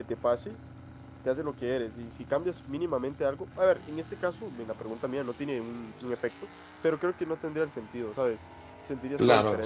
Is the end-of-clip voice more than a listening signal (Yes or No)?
Yes